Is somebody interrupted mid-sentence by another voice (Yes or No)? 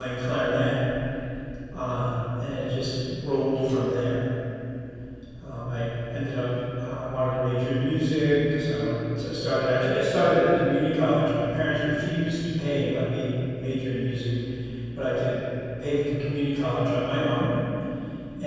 No